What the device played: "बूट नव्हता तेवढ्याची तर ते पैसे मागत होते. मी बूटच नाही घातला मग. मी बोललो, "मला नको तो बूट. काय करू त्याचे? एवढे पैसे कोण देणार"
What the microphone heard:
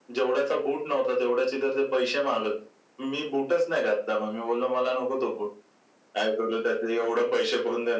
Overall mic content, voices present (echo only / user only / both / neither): echo only